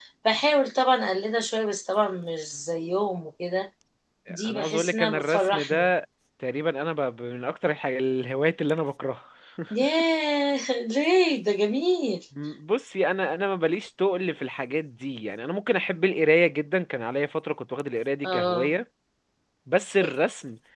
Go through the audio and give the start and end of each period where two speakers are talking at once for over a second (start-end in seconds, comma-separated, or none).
4.4-5.9